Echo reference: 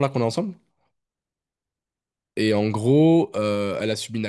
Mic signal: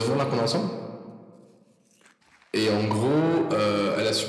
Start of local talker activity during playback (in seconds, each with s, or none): none